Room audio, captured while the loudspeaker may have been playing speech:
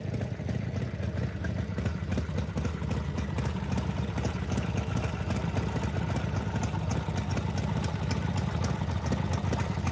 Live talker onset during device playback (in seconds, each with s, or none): none